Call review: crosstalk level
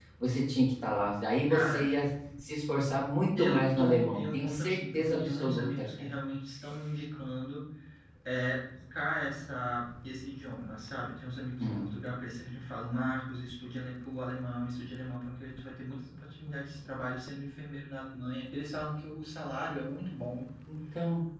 present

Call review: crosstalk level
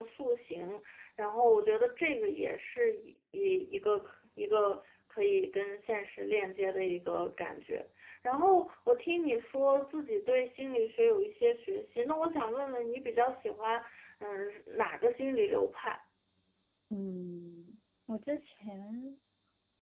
none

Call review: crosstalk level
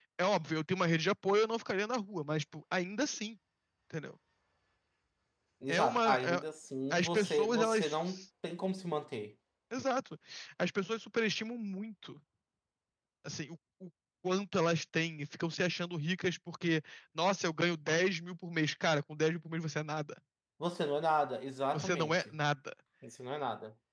present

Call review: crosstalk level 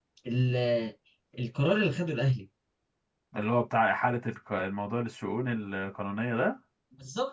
none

